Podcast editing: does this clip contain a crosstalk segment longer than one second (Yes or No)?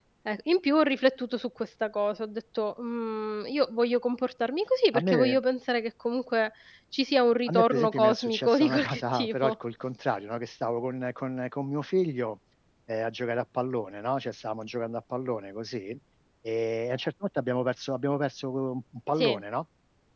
Yes